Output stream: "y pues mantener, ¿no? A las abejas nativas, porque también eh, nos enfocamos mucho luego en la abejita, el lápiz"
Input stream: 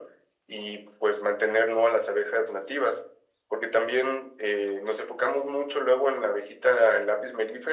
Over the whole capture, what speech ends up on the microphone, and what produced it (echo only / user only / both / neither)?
echo only